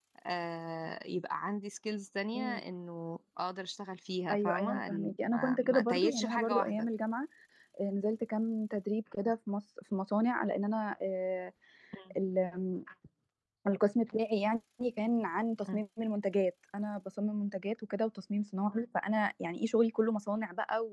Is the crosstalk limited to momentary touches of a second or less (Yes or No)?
No